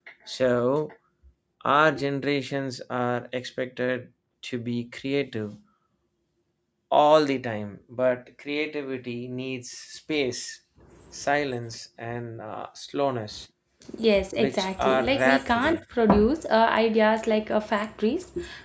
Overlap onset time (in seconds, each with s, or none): 14.4 s